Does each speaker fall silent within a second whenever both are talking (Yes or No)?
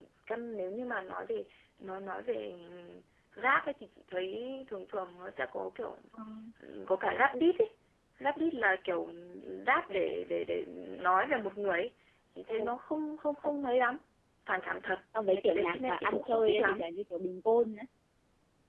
No